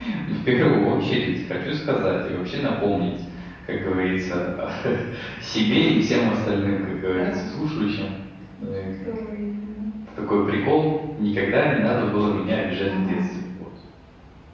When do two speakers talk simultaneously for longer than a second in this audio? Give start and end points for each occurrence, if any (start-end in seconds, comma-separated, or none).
none